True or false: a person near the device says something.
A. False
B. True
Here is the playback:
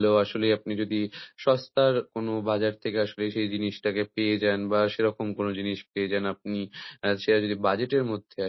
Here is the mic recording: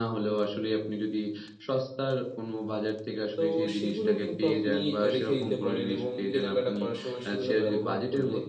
B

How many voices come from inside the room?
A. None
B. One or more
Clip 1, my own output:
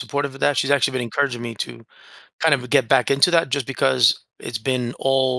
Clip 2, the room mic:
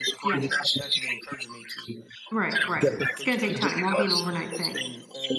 B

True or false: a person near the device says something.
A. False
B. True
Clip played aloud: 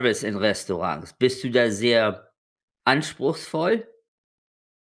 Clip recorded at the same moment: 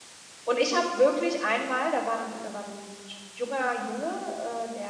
B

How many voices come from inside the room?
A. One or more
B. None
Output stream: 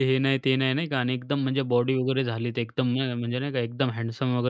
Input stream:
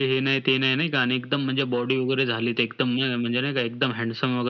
B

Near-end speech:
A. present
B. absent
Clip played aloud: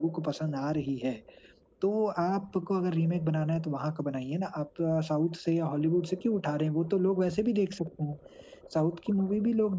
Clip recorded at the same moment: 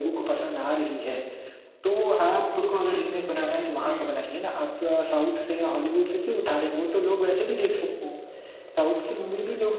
A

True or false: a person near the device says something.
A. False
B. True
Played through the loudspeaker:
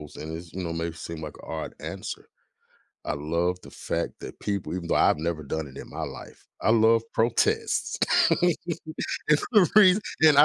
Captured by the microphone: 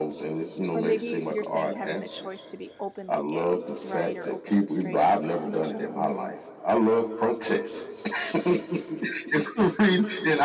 B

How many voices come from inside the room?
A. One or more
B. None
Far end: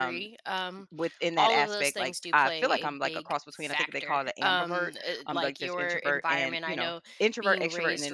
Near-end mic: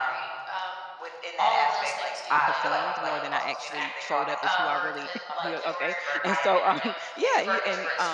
A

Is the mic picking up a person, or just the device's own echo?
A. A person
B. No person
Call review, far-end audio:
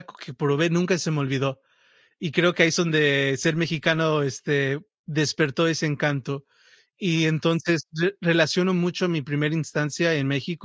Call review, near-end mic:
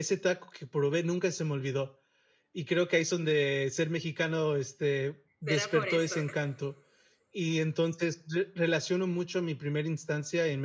A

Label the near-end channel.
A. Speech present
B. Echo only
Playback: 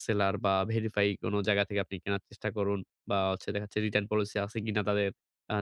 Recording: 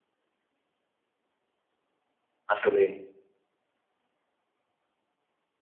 A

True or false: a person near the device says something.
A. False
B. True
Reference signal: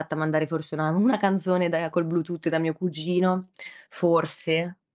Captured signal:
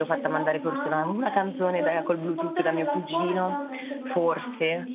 B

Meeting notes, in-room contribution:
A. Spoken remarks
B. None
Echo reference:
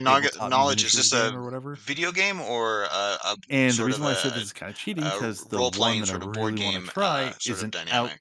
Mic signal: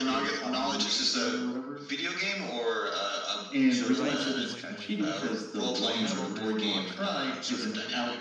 A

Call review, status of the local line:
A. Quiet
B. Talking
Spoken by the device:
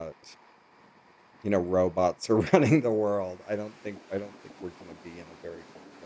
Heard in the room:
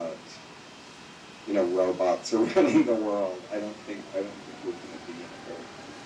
A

